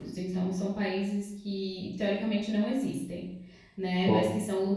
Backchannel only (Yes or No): Yes